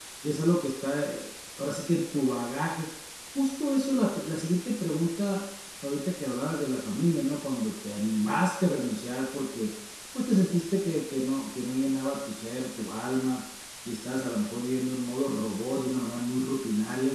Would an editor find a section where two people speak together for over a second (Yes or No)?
No